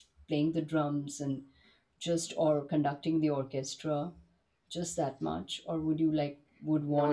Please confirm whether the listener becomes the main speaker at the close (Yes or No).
No